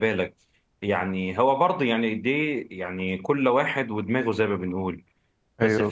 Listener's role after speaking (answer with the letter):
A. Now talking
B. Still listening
B